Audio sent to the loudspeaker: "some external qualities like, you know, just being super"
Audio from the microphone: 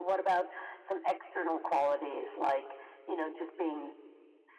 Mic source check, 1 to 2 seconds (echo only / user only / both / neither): echo only